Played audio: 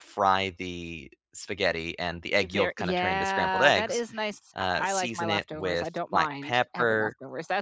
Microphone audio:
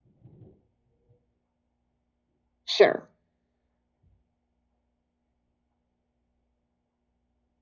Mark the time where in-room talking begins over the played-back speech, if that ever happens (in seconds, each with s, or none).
2.7 s